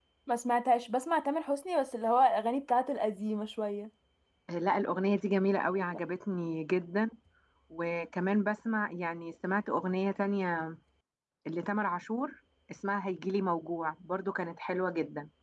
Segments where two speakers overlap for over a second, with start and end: none

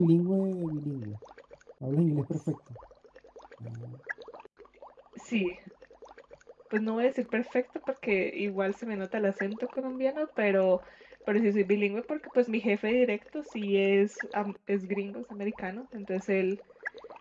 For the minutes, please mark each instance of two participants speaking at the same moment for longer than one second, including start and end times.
none

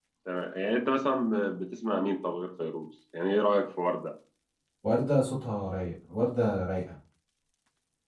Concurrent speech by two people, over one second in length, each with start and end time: none

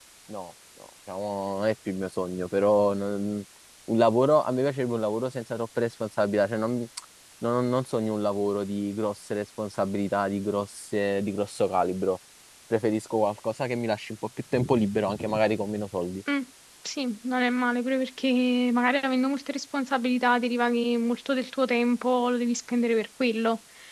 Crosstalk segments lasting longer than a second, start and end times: none

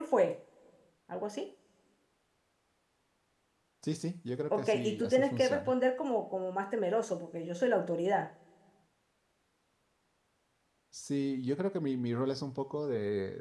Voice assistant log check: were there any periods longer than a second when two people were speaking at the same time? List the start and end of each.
4.5-5.7

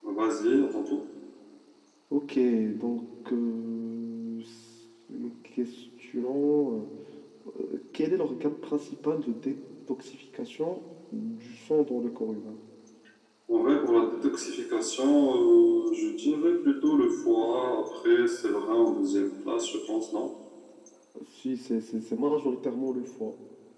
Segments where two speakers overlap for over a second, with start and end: none

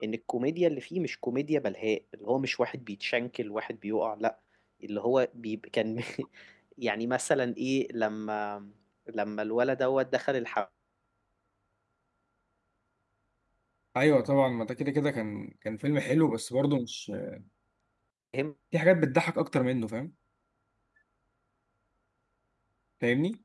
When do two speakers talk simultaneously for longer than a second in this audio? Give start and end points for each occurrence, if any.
none

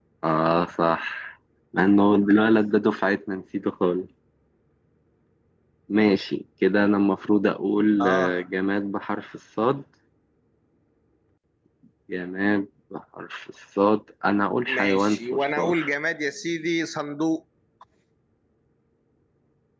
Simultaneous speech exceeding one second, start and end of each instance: 14.7-15.9

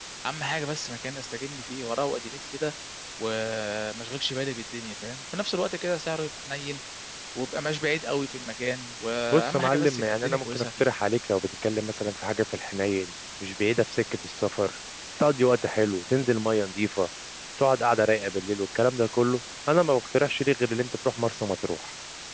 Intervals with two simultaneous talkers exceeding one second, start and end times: 9.3-10.9

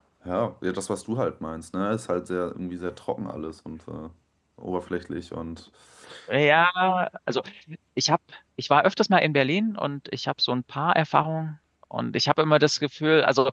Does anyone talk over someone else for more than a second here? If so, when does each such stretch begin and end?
none

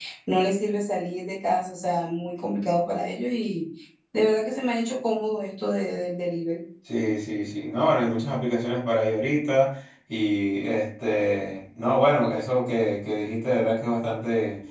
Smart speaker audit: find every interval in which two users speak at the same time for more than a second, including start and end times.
none

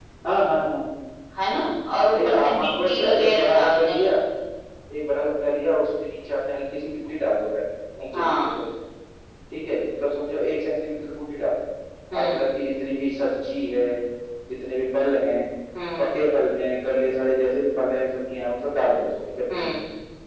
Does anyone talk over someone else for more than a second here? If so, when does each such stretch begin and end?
2.1-4.0

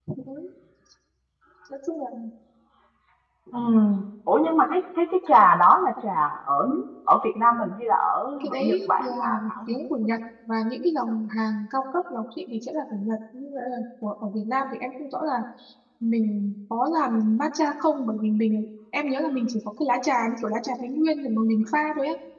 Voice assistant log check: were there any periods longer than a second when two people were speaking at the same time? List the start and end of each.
8.4-9.7

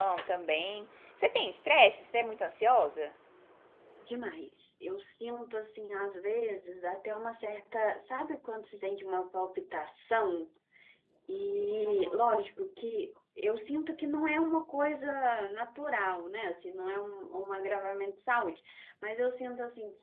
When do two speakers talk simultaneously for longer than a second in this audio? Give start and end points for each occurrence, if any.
none

